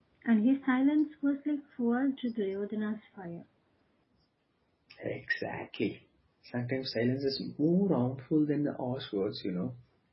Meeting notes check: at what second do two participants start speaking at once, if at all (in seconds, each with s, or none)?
none